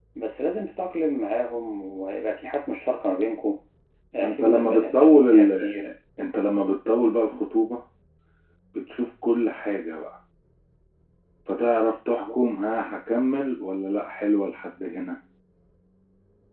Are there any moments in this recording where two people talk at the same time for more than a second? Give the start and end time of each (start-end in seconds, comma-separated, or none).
4.2-5.7